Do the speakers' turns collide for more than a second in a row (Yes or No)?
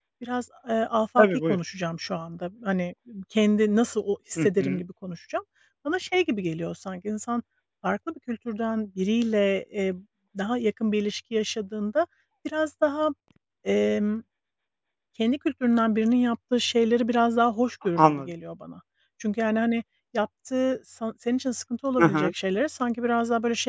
No